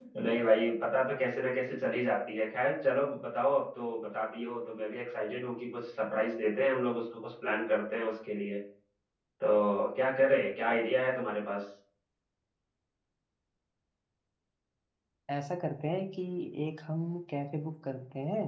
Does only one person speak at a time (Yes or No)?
Yes